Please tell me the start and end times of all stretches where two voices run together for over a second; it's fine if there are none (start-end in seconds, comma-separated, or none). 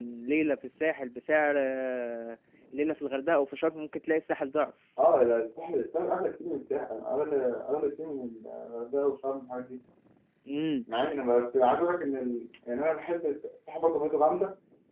none